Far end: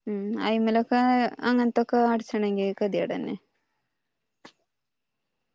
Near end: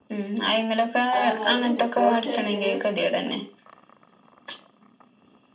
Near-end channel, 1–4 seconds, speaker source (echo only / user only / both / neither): both